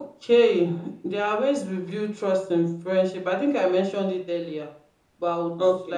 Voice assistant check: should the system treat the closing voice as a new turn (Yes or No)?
No